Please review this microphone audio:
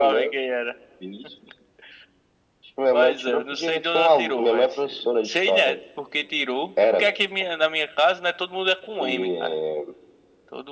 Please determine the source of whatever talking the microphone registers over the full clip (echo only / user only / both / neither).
echo only